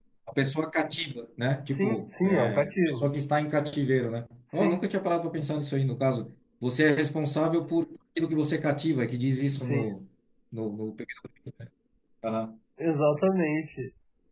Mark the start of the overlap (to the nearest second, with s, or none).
2 s